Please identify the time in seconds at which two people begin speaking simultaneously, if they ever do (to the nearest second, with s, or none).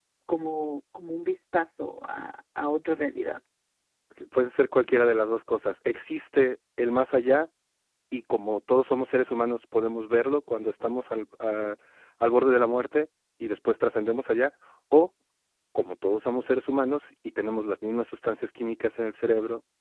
none